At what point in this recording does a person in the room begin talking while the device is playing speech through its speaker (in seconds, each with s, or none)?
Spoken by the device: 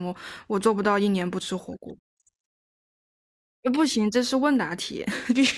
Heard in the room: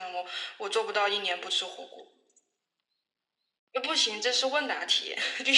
none